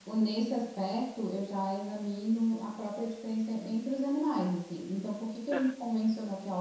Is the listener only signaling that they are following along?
Yes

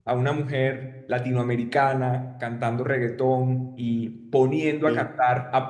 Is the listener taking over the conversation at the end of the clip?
No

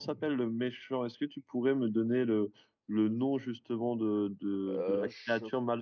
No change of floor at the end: Yes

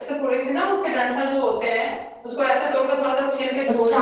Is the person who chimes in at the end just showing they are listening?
Yes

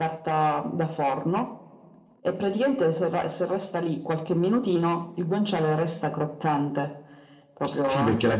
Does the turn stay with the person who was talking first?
No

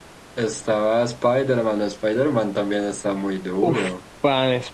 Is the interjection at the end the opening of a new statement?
Yes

